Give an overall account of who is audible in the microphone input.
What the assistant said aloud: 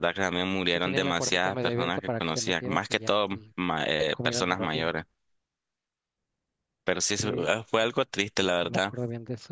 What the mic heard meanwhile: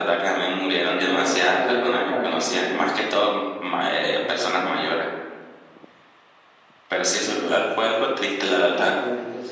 echo only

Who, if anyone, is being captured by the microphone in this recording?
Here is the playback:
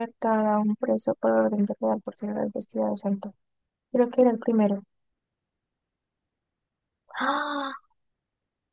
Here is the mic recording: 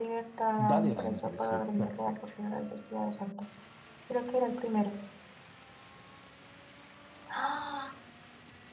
both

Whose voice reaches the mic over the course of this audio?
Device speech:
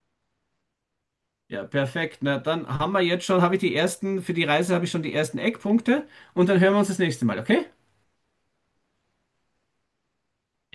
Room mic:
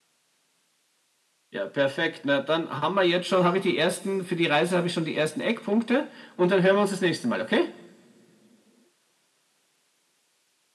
echo only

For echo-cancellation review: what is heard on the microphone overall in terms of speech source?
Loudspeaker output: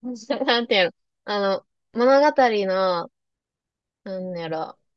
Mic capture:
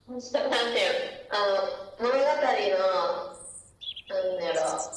echo only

